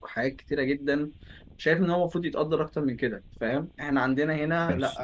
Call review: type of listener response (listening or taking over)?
listening